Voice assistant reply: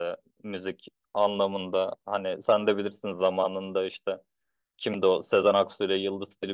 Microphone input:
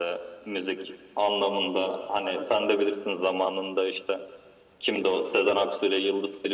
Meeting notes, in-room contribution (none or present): none